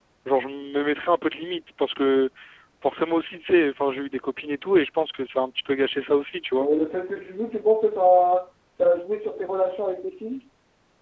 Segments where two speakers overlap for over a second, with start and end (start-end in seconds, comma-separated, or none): none